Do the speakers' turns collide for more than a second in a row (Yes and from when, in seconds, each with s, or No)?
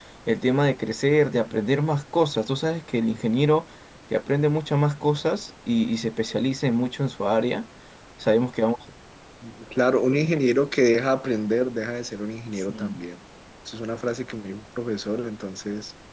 No